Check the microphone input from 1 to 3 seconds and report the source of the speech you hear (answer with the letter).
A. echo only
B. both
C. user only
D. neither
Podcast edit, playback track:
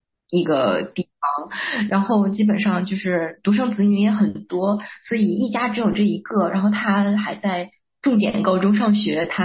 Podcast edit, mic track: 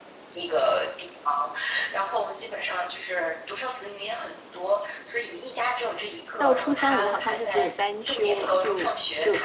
A